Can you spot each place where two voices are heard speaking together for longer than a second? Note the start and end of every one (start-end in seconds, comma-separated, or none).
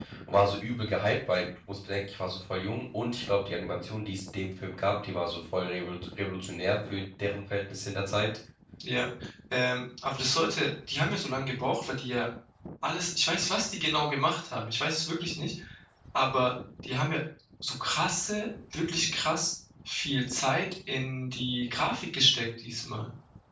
none